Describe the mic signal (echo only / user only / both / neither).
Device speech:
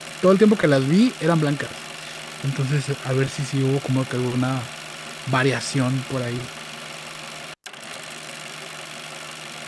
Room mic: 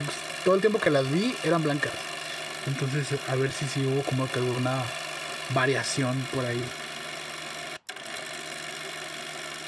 echo only